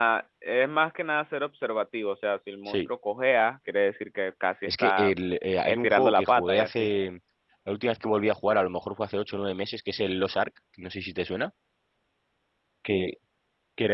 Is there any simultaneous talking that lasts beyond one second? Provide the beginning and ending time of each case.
5.6-6.9

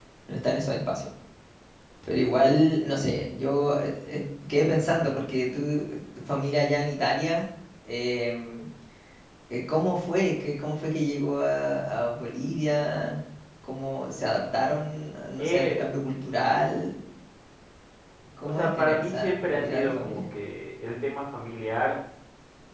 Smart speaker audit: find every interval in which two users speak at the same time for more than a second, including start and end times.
18.4-20.2

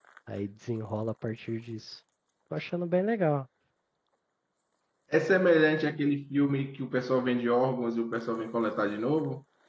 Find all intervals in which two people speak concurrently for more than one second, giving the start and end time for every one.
none

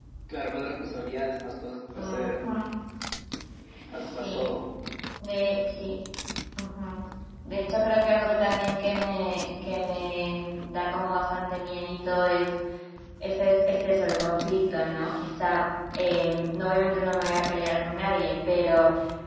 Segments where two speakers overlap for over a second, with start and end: none

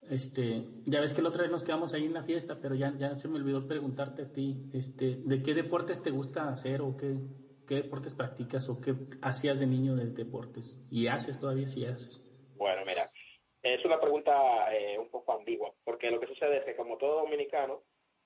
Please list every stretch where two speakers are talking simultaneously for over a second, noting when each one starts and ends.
none

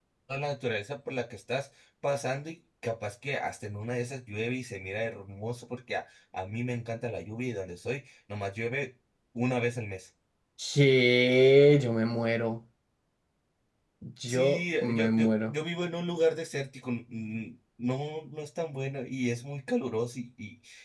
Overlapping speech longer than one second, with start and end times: 14.3-15.5

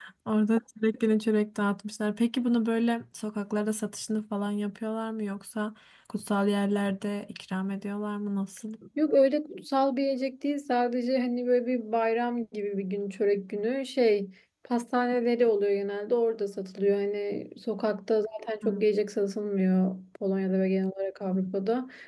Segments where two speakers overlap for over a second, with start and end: none

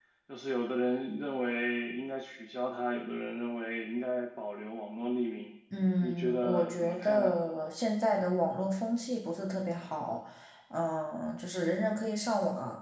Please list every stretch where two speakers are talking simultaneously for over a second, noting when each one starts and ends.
6.0-7.3

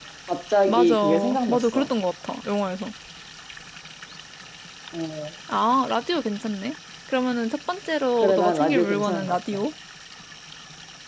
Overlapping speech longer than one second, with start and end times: 0.7-1.9, 8.2-9.6

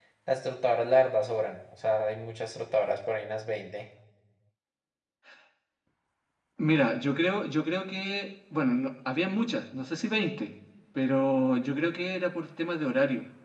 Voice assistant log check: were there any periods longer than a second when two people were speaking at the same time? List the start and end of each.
none

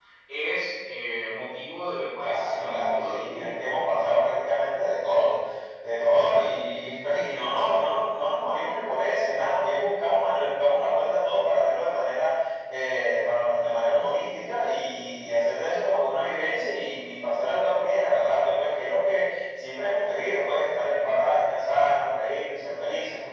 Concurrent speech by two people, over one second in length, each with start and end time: 2.2-3.6

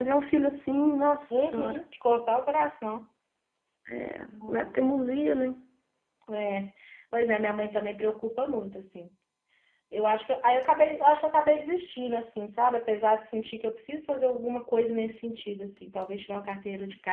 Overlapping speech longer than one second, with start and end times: none

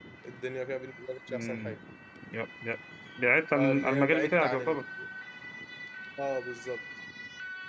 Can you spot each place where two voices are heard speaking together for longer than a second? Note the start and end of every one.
3.6-4.8

